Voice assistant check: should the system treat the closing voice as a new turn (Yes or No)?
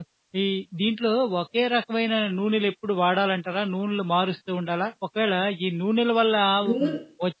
No